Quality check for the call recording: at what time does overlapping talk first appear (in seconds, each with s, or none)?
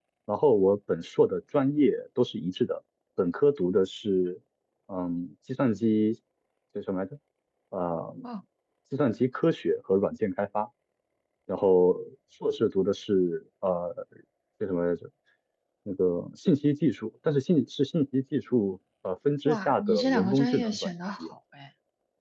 19.4 s